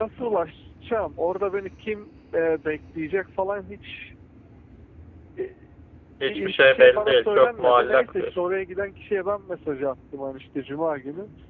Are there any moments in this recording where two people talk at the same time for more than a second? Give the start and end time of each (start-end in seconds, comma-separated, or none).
6.2-8.4